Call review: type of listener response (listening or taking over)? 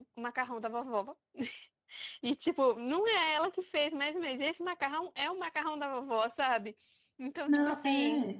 listening